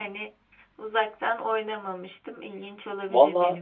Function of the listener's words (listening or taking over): taking over